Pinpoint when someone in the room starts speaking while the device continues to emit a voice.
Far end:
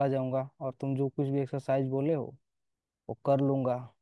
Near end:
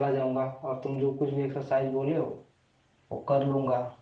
none

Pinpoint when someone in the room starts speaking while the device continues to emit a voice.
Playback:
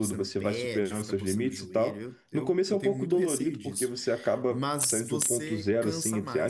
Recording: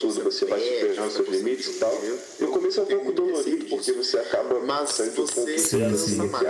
5.5 s

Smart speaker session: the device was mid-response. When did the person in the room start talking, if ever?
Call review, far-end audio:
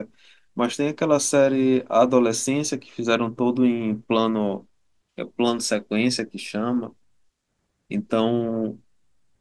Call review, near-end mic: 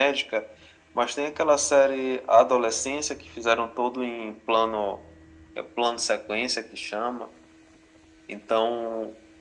none

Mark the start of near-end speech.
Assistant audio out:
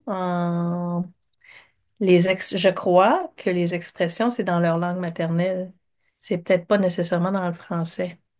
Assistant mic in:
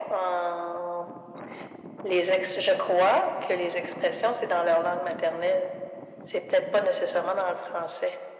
none

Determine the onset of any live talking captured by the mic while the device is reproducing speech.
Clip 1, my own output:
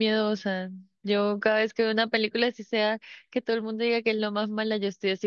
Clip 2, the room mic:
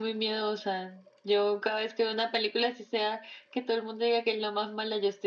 none

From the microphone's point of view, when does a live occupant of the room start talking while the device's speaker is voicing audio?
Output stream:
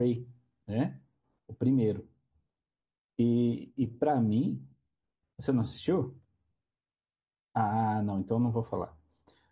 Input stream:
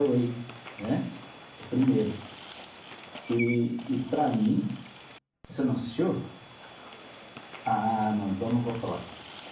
none

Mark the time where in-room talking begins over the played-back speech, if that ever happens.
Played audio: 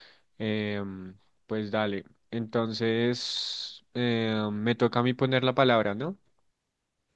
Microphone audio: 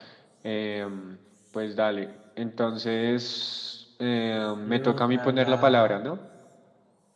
4.6 s

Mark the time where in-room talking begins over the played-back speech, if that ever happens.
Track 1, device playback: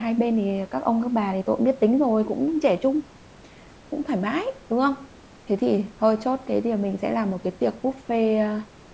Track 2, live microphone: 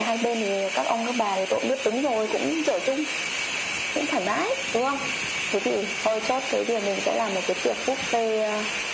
none

